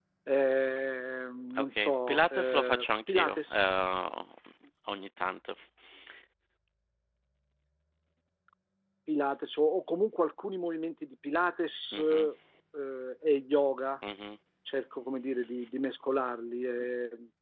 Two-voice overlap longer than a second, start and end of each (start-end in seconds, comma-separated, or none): 1.6-3.7